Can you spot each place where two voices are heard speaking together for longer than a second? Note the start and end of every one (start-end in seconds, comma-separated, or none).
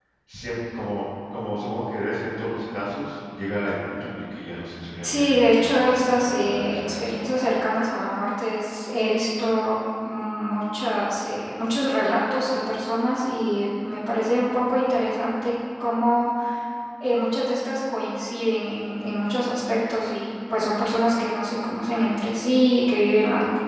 5.0-7.2